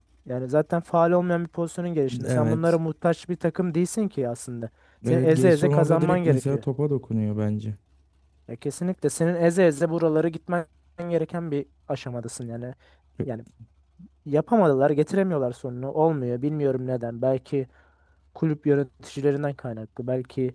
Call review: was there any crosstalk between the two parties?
Yes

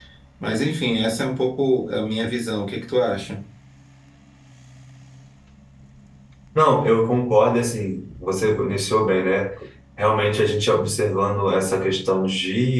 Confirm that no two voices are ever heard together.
Yes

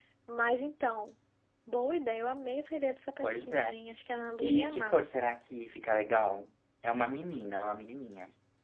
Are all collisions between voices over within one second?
Yes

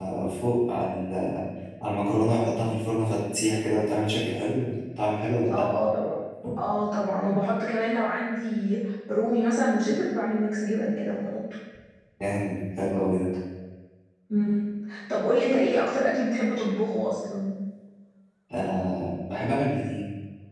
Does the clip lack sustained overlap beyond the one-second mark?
Yes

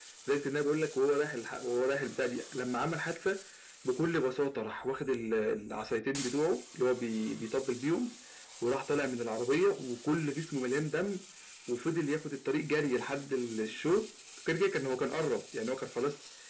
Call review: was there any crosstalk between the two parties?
No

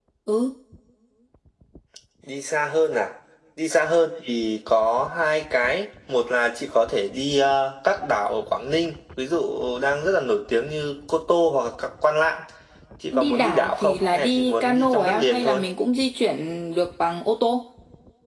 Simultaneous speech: Yes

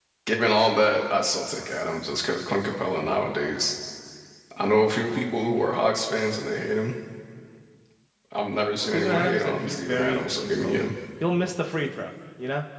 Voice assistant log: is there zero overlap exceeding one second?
No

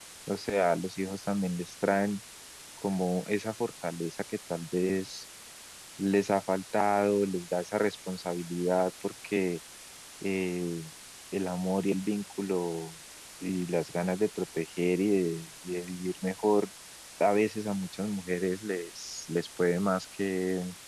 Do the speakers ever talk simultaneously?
No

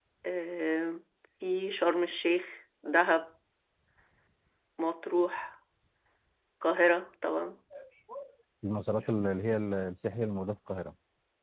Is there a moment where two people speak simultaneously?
No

